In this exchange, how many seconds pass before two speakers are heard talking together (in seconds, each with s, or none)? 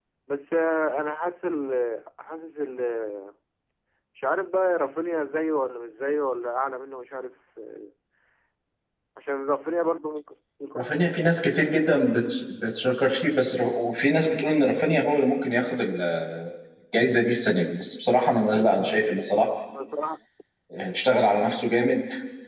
none